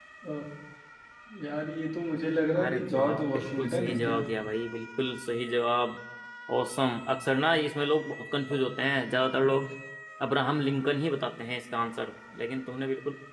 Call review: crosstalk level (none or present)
present